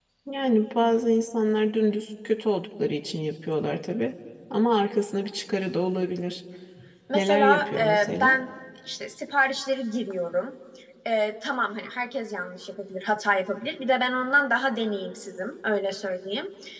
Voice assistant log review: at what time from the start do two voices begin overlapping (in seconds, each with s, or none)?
7.1 s